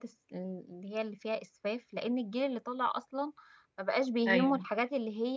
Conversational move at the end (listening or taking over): listening